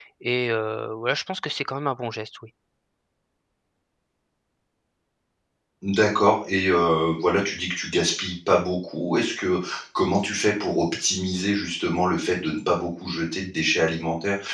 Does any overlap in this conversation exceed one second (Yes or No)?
No